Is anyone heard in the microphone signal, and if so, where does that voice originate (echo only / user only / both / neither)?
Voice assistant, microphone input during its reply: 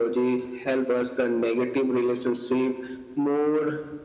echo only